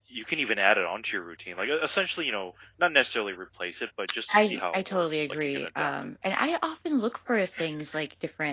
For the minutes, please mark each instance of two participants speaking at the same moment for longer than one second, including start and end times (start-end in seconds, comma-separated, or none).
4.3-5.9